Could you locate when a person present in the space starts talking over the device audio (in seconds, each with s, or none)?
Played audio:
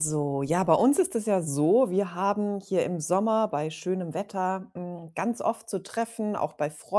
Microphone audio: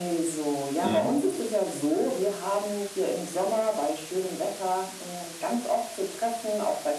0.8 s